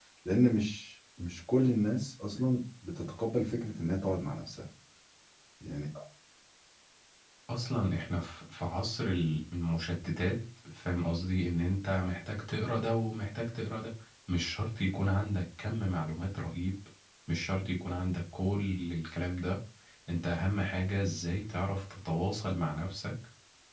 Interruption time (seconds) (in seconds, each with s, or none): none